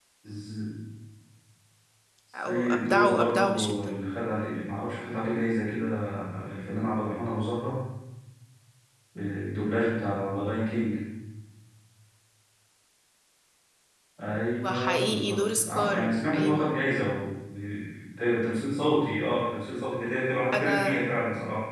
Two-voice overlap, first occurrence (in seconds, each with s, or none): 2.5 s